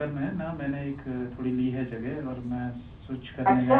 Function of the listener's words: listening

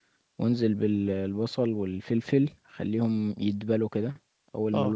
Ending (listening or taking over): listening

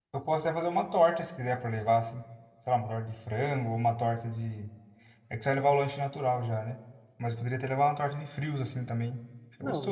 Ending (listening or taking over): taking over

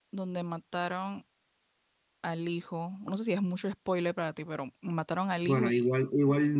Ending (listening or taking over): taking over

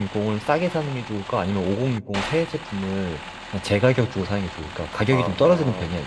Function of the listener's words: taking over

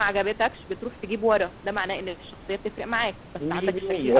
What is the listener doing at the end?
taking over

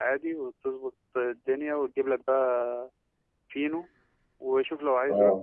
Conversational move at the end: listening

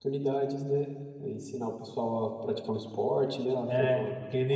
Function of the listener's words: taking over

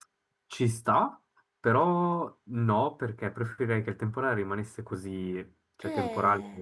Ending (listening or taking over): listening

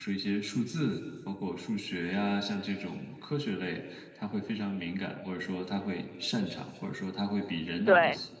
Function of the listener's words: listening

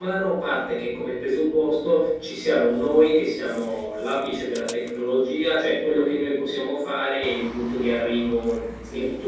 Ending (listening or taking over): listening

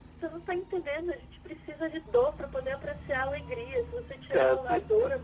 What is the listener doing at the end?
listening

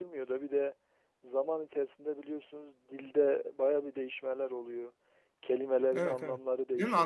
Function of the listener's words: taking over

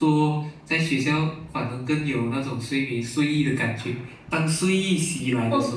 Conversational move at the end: listening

